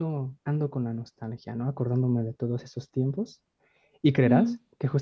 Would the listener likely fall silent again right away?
Yes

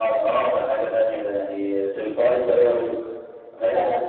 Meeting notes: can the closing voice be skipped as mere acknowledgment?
Yes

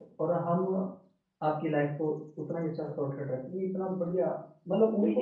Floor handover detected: Yes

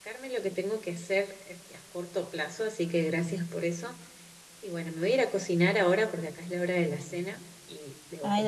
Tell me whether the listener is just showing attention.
No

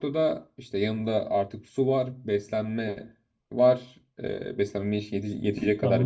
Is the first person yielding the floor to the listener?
Yes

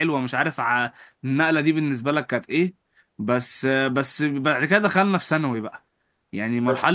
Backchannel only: No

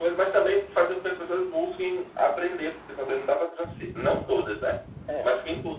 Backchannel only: Yes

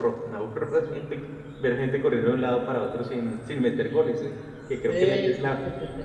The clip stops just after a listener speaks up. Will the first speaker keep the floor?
Yes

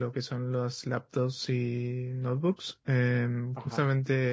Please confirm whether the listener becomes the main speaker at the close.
No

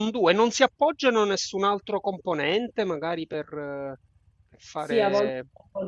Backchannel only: No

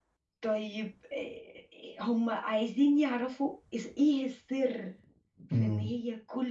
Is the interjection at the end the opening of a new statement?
No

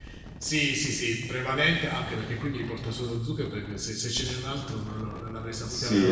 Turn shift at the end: Yes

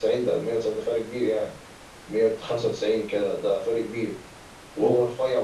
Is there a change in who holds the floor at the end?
No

